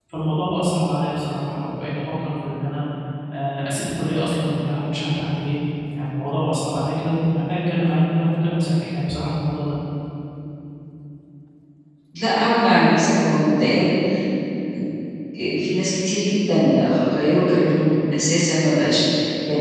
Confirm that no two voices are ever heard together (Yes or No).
Yes